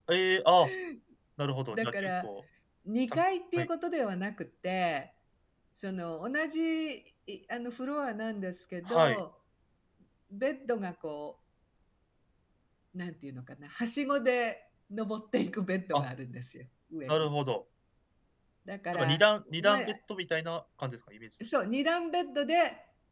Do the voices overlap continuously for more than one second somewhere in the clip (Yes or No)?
No